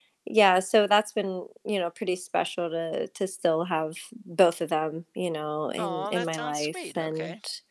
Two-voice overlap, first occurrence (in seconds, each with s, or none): 5.8 s